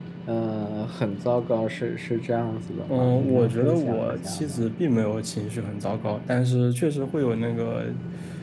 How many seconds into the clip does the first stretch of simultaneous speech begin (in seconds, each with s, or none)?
2.9 s